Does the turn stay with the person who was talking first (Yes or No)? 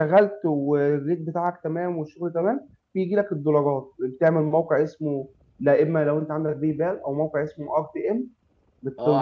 No